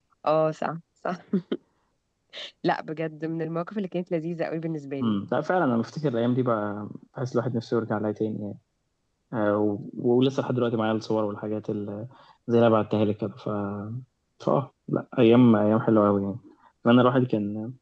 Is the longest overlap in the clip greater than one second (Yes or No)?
No